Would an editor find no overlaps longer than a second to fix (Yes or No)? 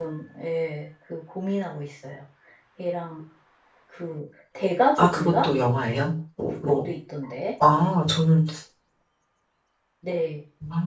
Yes